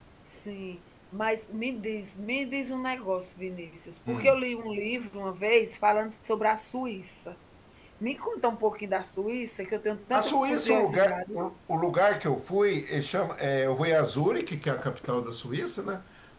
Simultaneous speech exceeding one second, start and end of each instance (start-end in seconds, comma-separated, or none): 10.1-11.4